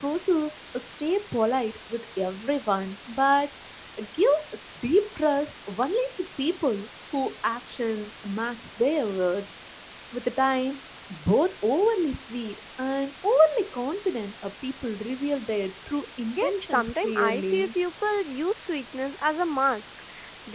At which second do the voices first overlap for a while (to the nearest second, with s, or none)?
16 s